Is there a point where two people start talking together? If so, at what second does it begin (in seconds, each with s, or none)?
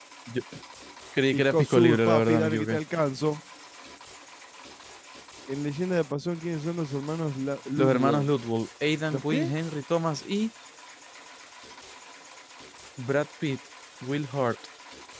1.4 s